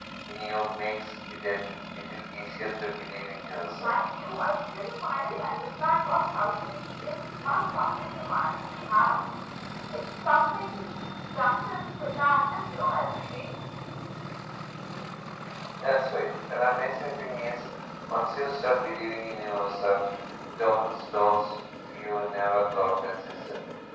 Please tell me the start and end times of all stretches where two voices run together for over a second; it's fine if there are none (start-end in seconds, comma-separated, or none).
none